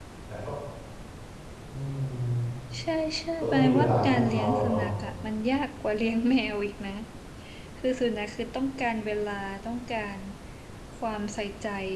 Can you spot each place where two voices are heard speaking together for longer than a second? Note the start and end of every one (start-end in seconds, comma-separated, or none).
3.4-4.8